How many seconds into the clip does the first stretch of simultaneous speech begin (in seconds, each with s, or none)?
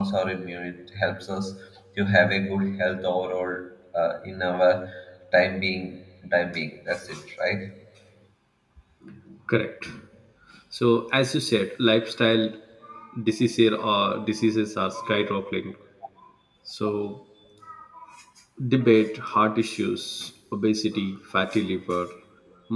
none